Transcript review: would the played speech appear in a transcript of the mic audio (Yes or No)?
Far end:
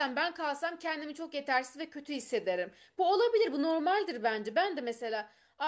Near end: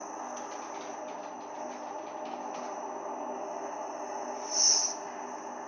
No